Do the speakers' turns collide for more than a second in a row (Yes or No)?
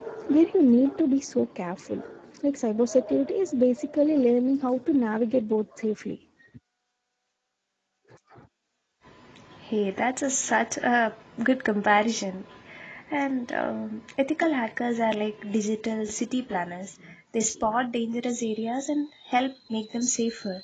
No